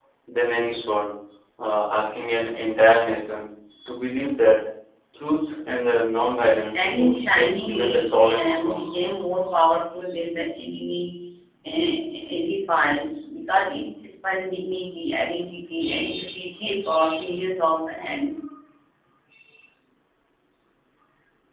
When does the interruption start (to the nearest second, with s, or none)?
7 s